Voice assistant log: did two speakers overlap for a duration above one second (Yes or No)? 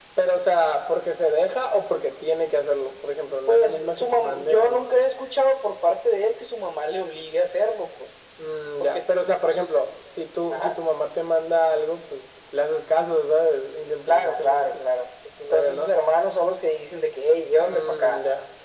Yes